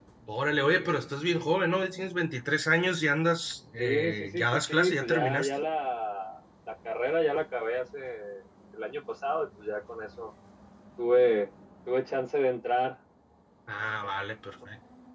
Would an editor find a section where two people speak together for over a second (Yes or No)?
Yes